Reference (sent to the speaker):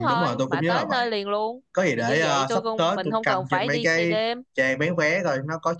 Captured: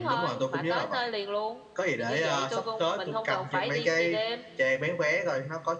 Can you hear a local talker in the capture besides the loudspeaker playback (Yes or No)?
No